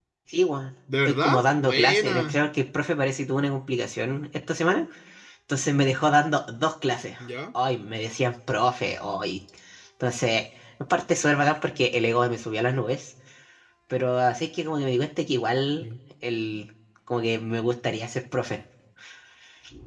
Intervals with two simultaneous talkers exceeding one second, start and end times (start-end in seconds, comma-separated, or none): 1.1-2.4